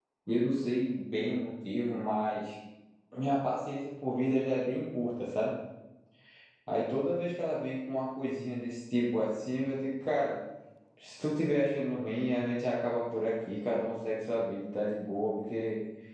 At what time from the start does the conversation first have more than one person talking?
none

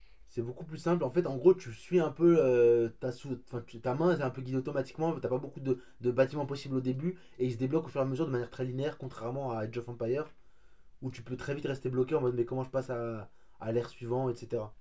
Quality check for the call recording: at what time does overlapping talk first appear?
none

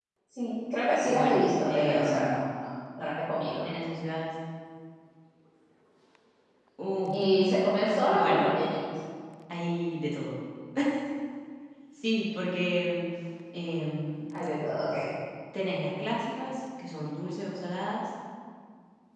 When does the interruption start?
1.0 s

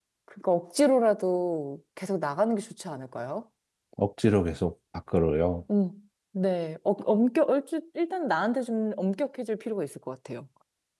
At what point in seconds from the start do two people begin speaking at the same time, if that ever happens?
none

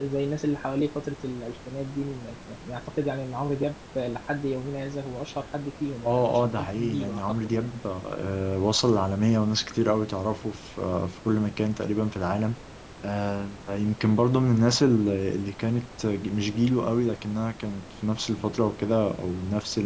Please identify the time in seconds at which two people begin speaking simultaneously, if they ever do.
6.0 s

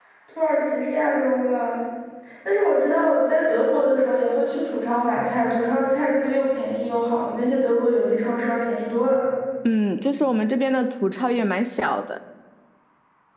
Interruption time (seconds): none

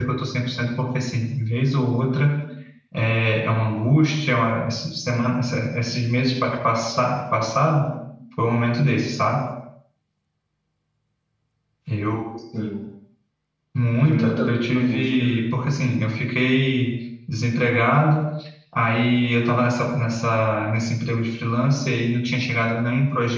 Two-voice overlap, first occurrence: 14.0 s

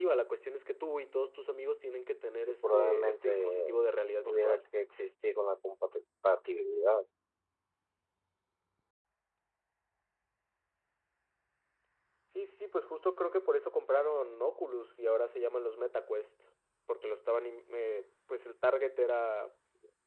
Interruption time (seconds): 2.5 s

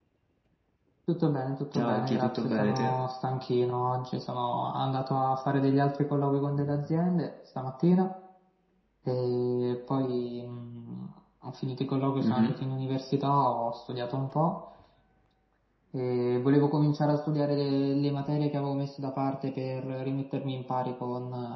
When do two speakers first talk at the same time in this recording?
1.7 s

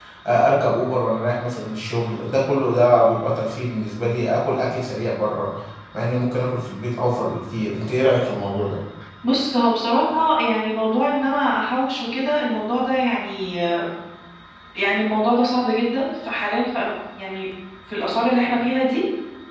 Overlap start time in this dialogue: none

